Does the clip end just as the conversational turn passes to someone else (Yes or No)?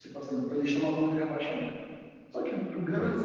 No